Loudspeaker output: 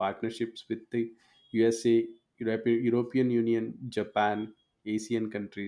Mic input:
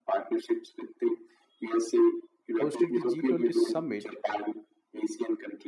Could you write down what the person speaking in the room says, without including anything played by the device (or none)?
hosted the g20 summit